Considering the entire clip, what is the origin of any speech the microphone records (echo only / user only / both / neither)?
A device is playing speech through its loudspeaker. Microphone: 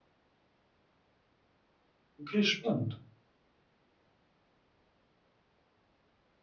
user only